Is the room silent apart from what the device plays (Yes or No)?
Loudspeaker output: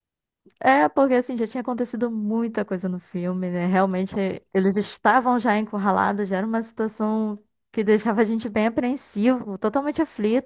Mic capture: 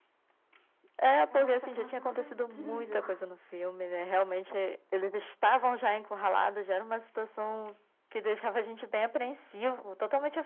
No